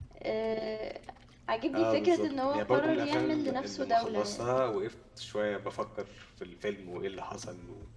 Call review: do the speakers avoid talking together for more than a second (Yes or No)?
No